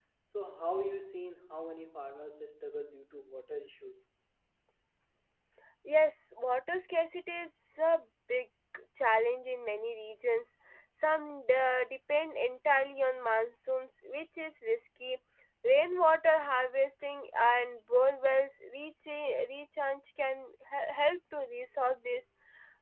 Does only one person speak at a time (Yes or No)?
Yes